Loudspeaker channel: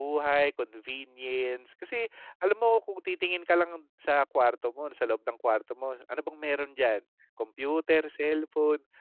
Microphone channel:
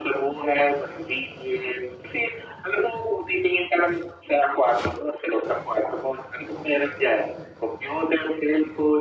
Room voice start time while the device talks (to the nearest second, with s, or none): none